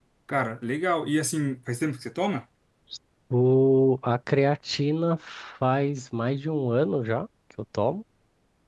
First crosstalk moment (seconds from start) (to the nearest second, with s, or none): none